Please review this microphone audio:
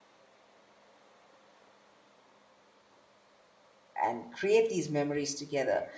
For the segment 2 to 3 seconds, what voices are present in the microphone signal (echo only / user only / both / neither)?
neither